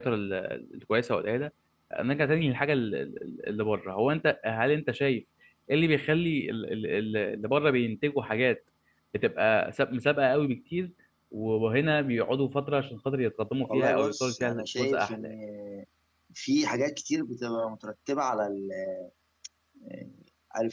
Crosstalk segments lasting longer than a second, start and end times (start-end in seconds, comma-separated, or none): 13.6-15.3